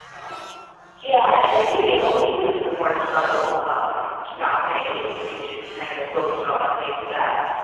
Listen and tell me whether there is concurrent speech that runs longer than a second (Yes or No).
Yes